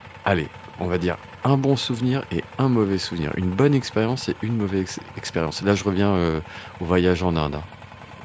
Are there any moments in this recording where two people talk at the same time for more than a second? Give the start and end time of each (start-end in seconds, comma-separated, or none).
none